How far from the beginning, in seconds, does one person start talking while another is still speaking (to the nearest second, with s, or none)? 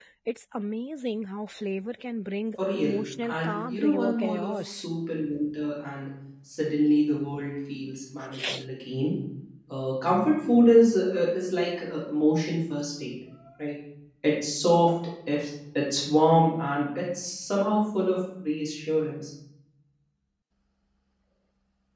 3 s